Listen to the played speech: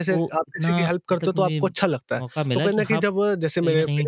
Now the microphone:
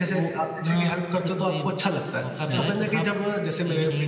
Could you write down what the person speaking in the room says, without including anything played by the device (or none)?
अच्छा,